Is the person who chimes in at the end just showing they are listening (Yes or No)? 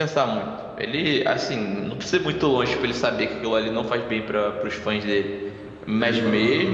Yes